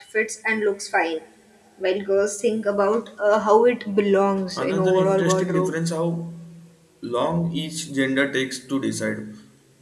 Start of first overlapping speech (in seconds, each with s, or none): 4.5 s